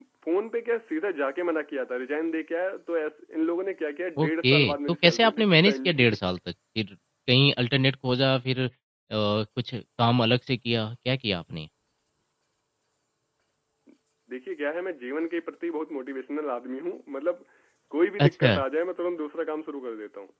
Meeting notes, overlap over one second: present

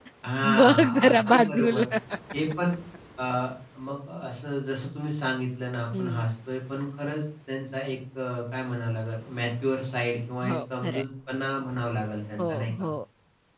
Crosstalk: present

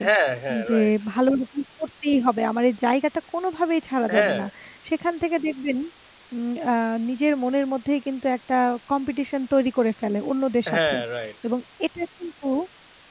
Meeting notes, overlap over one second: none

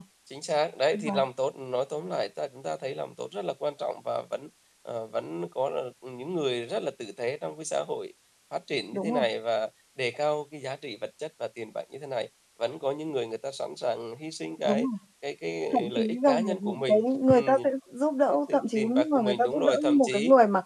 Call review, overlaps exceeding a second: present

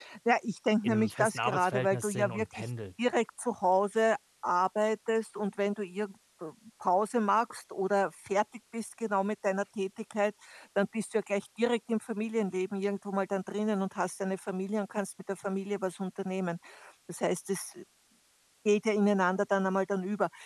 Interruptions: present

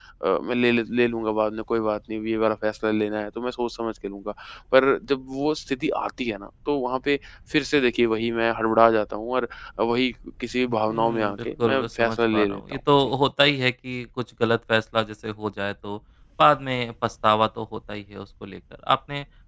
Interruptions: present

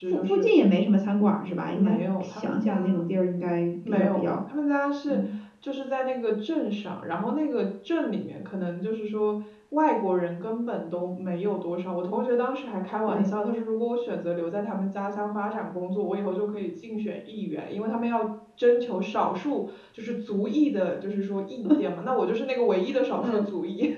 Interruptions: present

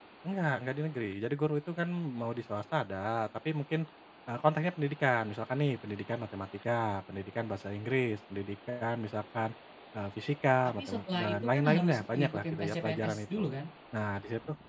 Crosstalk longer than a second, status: present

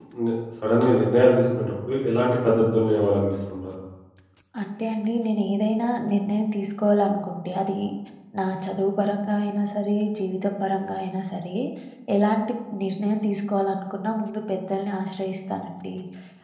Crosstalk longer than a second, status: none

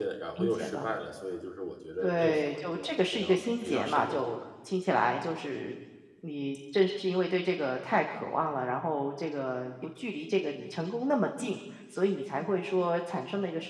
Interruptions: present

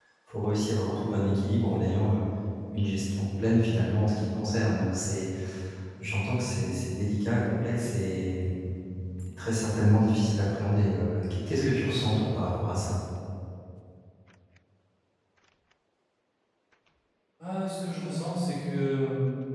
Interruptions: none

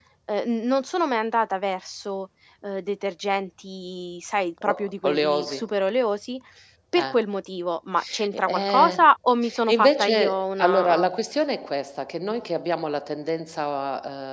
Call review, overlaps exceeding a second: present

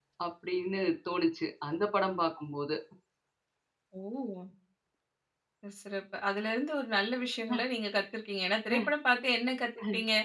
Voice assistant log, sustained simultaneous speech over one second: none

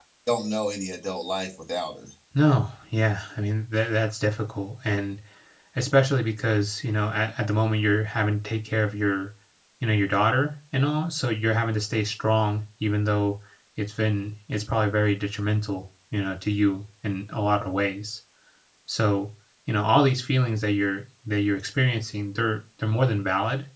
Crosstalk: none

